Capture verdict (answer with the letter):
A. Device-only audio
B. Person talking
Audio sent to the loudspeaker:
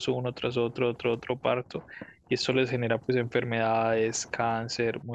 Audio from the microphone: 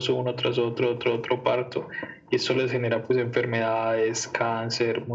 A